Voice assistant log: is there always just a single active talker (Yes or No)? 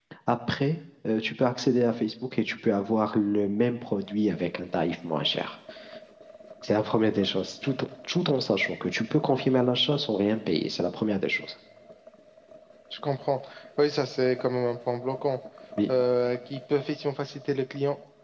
Yes